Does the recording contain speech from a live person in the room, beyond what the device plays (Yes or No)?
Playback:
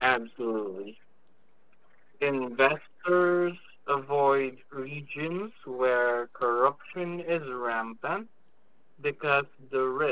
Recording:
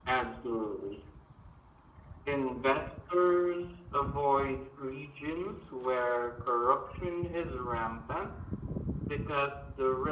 No